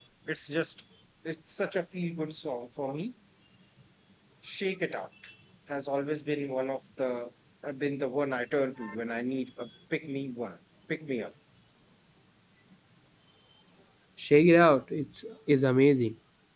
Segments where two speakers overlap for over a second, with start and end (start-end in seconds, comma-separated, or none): none